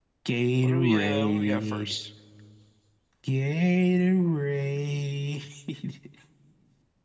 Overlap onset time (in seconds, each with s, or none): 0.6 s